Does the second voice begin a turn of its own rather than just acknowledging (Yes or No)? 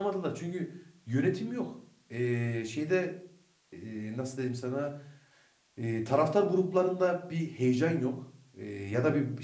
No